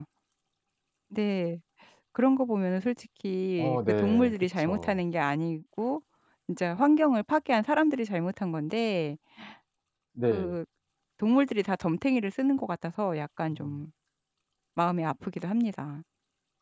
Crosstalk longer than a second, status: present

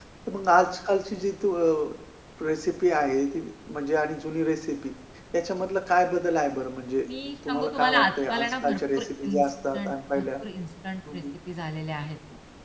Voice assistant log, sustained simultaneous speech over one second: present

